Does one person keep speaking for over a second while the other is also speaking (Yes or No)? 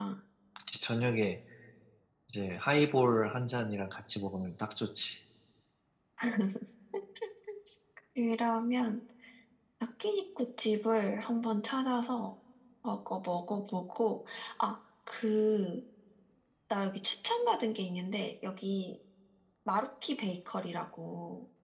No